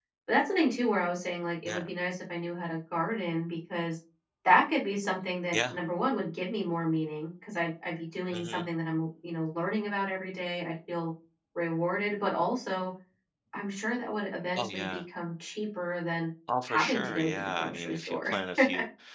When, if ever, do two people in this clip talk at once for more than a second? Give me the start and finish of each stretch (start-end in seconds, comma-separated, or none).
16.7-18.3